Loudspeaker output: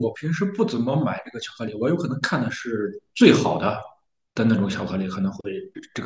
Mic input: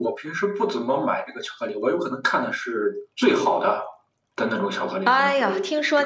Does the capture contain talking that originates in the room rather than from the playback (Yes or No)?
Yes